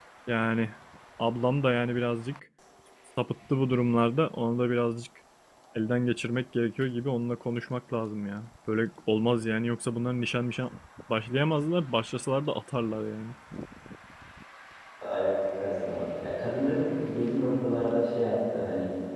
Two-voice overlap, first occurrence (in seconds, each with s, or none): none